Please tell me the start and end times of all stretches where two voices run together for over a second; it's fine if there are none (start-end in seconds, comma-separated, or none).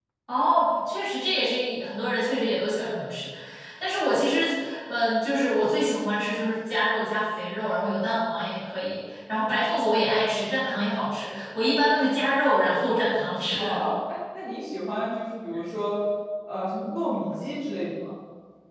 none